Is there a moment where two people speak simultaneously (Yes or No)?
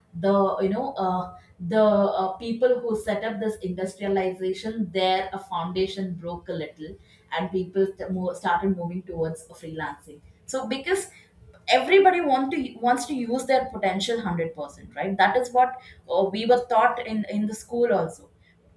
No